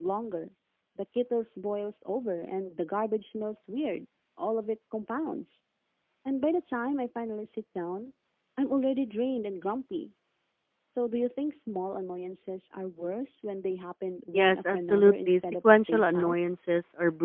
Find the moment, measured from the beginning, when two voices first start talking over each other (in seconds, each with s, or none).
14.3 s